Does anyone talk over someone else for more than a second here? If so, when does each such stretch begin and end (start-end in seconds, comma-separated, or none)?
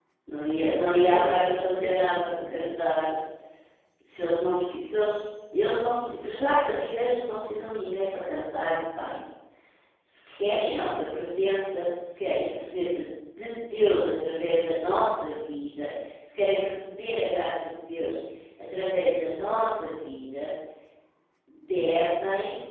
0.6-2.7